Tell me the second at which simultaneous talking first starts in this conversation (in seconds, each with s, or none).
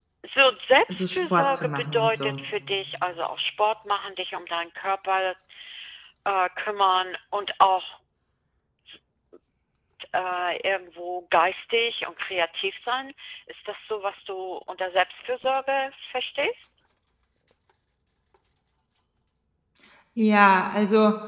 0.9 s